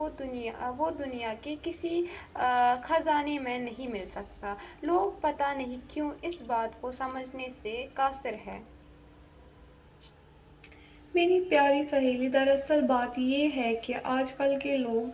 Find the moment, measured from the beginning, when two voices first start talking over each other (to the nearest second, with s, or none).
none